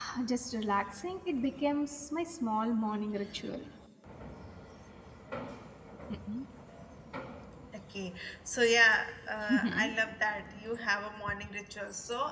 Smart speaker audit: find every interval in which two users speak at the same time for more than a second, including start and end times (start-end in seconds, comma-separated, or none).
none